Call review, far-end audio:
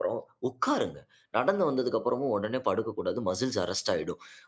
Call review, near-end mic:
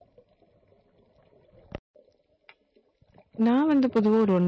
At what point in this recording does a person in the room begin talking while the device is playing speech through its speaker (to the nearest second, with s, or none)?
3 s